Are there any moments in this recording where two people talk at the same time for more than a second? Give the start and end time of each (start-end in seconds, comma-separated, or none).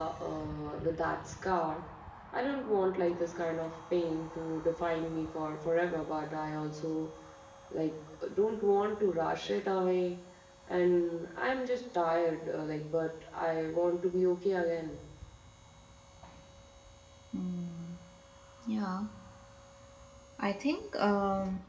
none